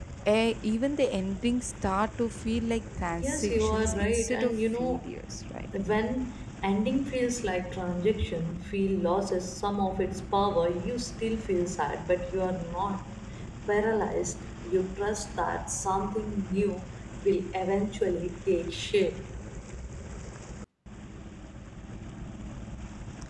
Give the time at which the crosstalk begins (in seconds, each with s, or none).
3.2 s